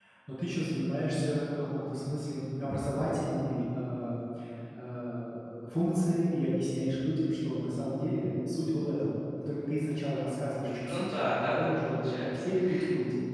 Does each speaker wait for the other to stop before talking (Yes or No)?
No